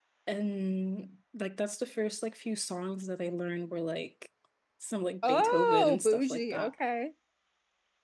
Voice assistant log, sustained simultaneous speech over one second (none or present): present